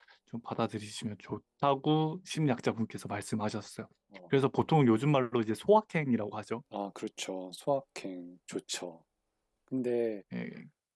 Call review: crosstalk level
none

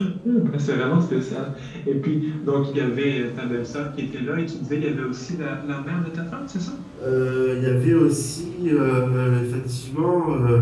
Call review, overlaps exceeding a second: none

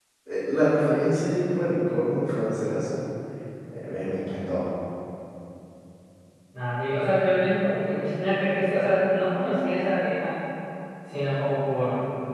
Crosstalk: none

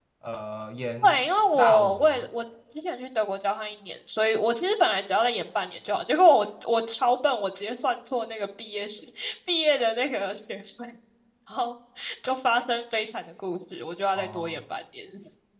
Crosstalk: present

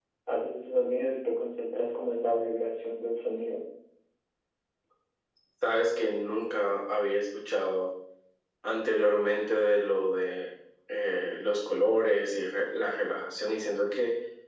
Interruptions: none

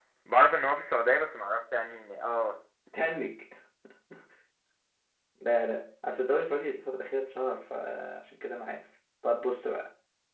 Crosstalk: none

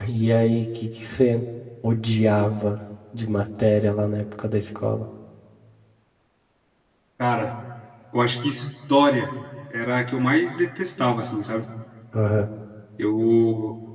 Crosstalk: none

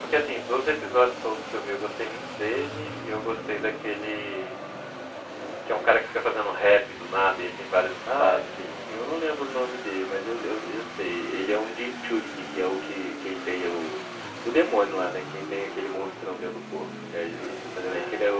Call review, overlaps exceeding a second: none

